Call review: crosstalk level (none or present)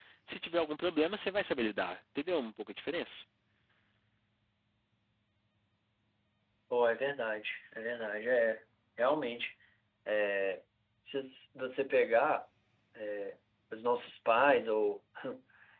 none